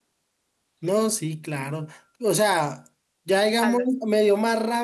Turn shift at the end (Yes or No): No